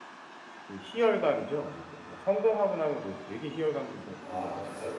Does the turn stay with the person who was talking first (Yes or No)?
No